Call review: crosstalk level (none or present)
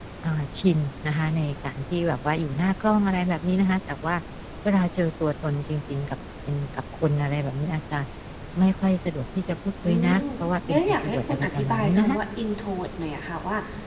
present